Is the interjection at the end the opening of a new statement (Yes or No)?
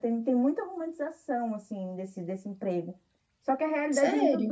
No